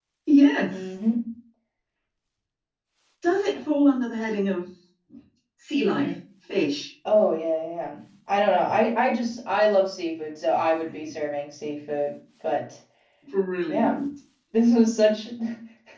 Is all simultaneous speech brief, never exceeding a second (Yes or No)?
Yes